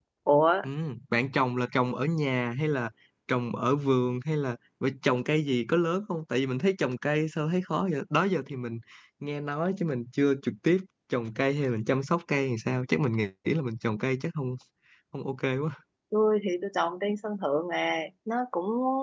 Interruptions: none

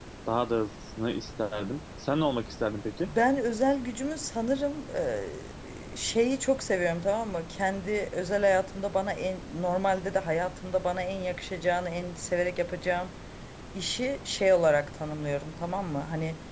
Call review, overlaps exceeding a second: none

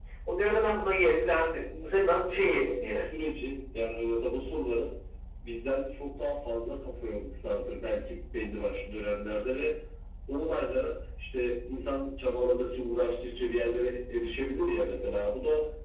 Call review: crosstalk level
present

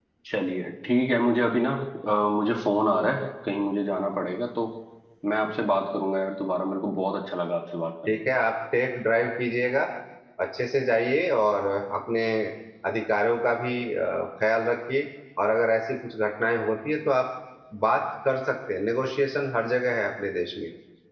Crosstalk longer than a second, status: none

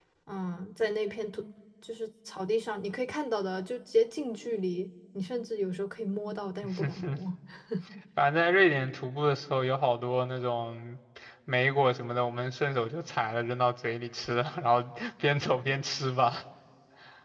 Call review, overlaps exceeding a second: none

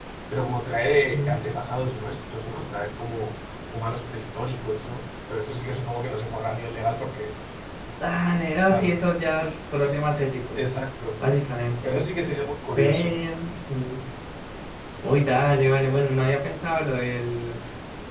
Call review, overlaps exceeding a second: none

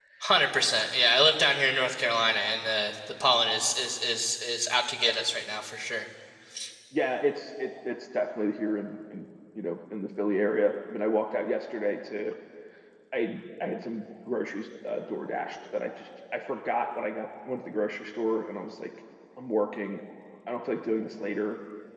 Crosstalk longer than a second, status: none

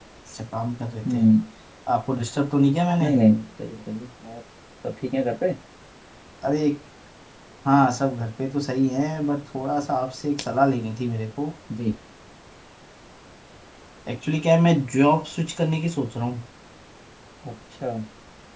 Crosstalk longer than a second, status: none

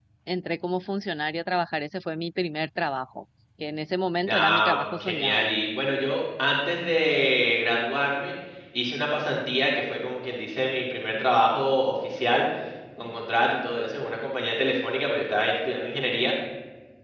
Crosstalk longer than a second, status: present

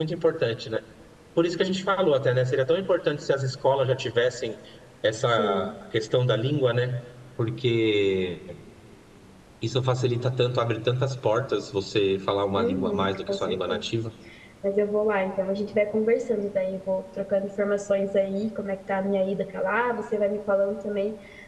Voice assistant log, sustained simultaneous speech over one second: present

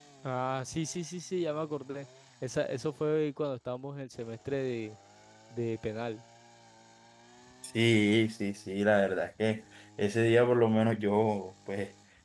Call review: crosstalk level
none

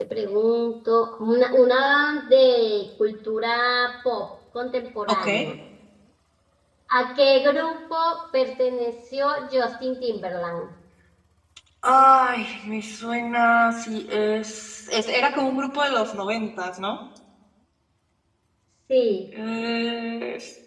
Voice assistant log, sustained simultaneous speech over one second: none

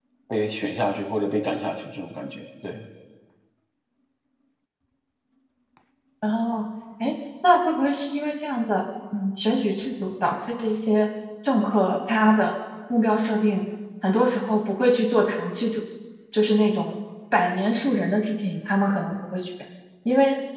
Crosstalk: none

